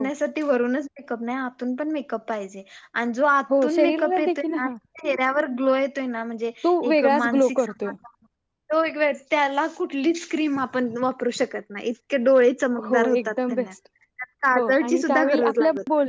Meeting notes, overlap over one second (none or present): present